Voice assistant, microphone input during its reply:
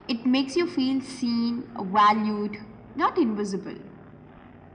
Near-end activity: none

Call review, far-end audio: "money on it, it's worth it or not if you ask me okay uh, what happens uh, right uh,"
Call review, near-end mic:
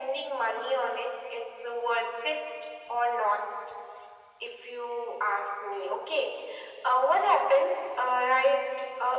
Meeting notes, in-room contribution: none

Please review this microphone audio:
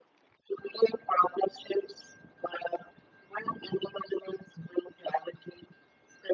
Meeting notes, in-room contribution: none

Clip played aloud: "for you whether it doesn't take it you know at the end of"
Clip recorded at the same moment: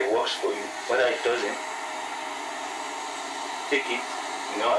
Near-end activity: none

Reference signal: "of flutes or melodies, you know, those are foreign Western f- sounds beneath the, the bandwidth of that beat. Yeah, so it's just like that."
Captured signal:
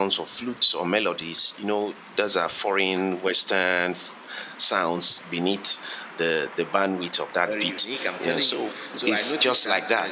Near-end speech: present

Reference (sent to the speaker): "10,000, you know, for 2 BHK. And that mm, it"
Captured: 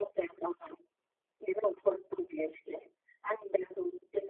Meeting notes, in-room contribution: none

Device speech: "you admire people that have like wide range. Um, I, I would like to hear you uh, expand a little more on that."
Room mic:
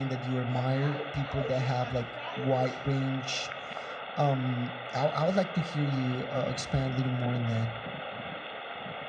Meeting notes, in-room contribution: present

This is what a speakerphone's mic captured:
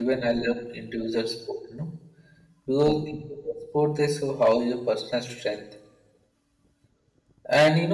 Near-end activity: present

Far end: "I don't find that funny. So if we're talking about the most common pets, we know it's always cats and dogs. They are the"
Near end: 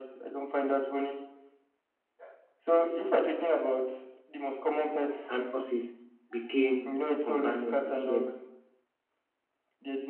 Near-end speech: present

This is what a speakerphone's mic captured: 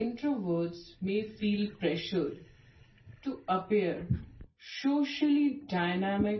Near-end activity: present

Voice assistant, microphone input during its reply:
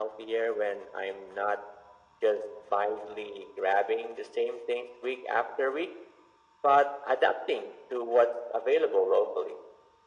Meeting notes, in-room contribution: none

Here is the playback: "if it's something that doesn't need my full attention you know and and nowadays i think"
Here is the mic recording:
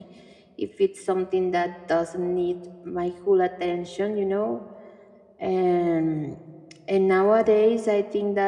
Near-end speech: none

